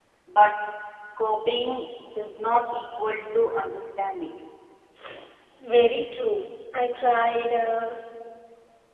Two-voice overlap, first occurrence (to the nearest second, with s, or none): none